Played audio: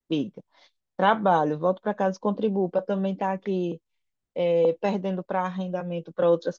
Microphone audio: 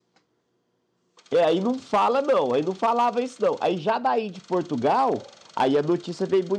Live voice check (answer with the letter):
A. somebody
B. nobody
A